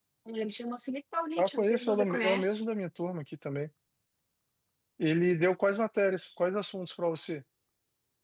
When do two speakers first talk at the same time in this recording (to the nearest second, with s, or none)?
1 s